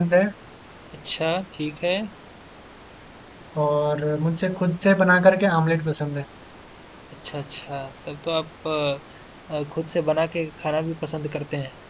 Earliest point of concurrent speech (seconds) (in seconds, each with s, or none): none